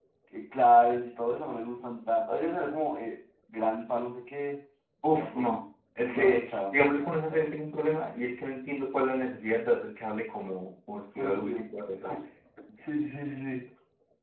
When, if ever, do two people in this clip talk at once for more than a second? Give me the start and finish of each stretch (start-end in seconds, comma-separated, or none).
6.1-7.6